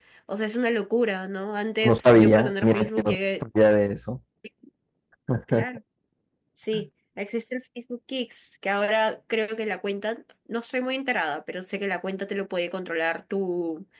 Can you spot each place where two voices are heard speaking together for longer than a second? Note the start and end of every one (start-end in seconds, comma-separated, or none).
1.8-3.4